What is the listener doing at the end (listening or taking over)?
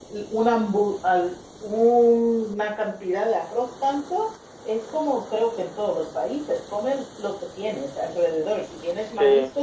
listening